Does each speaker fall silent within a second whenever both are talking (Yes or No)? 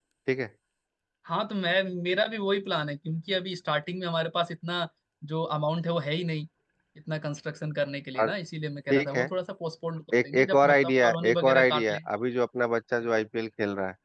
No